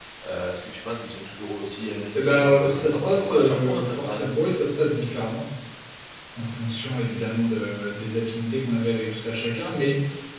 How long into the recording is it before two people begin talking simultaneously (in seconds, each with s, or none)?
2.1 s